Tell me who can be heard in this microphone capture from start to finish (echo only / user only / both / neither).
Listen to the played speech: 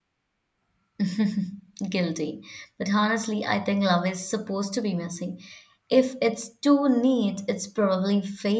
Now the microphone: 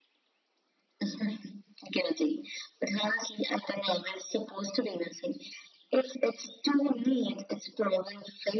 echo only